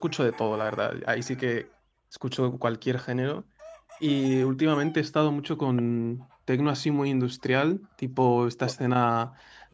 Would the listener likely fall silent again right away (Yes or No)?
Yes